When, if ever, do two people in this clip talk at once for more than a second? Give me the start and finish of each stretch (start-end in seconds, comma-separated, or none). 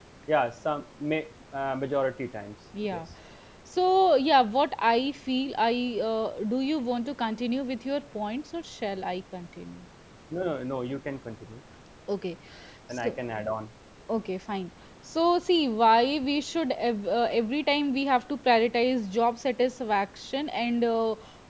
none